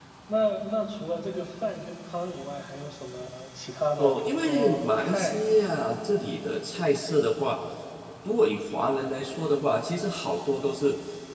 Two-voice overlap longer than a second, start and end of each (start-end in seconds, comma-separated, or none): 4.0-5.4